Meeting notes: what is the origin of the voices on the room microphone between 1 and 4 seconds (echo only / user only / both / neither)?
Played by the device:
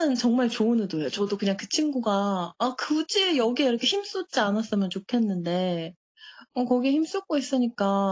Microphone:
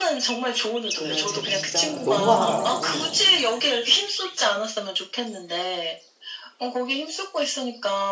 both